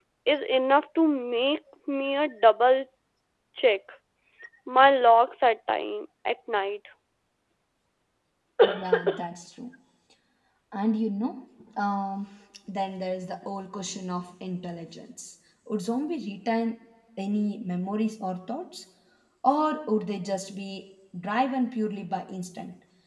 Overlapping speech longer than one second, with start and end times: none

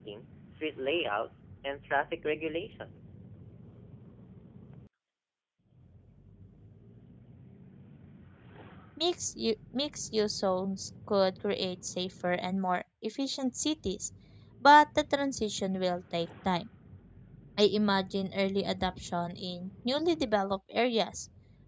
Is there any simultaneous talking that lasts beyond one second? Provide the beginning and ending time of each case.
none

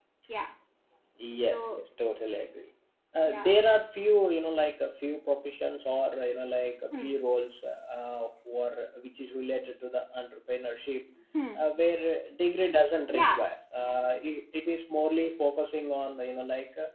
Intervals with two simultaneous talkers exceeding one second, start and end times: none

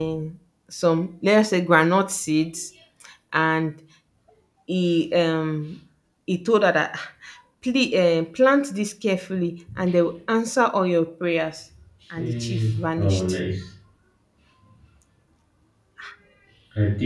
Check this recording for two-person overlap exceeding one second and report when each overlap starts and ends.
12.2-13.4

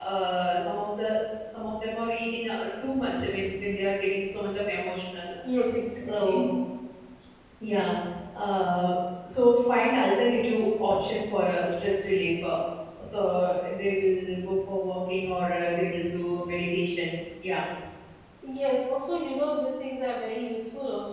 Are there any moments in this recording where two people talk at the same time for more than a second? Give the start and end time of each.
none

